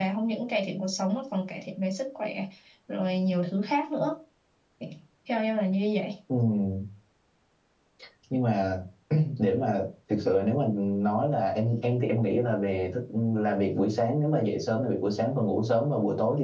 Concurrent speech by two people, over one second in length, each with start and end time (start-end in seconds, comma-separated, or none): none